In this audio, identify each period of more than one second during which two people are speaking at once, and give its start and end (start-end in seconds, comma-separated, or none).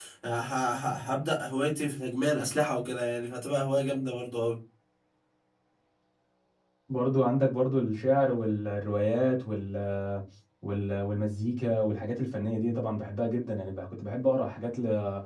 none